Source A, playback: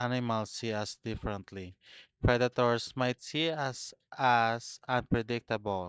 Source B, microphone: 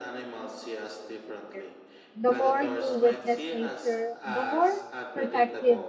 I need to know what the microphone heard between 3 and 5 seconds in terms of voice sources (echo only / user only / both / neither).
both